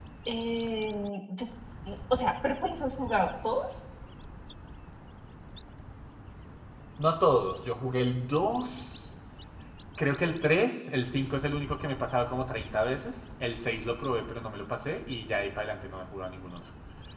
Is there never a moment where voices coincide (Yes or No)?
Yes